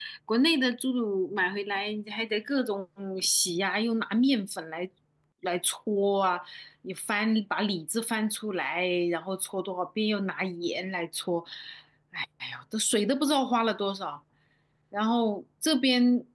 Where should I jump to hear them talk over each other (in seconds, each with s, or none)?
none